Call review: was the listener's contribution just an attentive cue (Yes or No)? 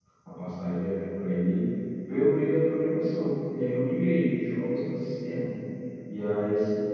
Yes